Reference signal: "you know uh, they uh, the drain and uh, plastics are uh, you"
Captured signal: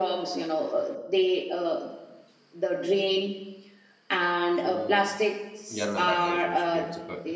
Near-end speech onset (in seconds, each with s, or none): 4.5 s